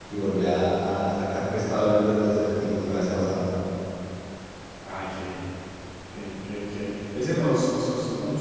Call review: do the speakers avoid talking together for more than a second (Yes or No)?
Yes